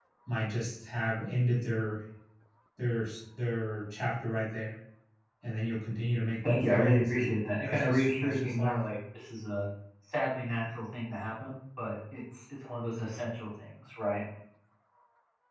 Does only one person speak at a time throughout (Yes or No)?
No